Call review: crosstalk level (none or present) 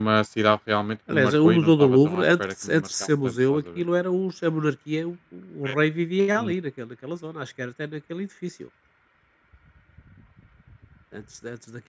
present